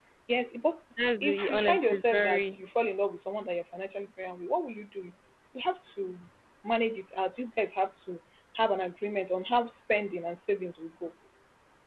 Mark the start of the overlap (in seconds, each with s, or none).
1.2 s